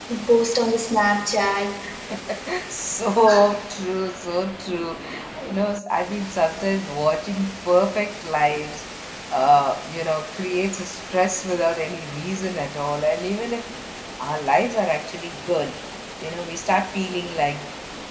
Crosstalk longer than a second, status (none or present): none